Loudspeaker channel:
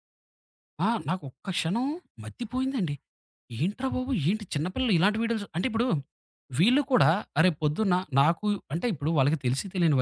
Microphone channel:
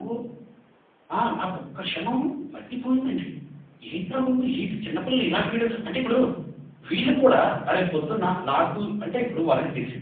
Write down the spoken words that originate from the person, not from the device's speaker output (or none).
none